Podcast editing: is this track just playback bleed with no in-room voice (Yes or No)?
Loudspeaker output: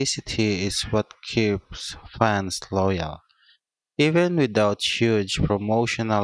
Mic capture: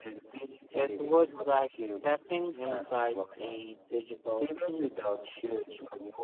No